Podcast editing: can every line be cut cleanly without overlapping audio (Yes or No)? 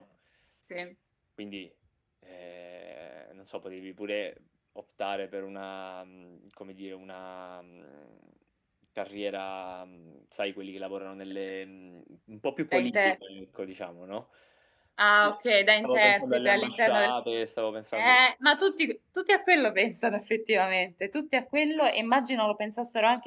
No